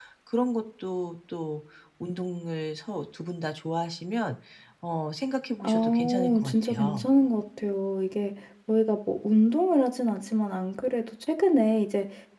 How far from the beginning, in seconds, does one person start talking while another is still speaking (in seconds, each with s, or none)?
5.6 s